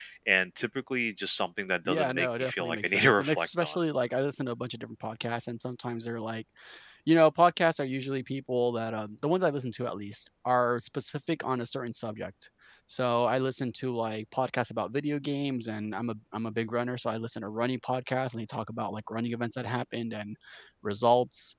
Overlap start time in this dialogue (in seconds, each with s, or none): 1.9 s